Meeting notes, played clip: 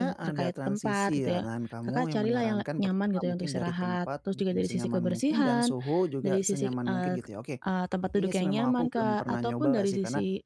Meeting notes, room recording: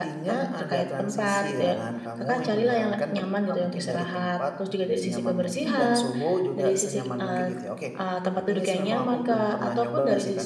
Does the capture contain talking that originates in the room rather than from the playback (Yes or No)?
No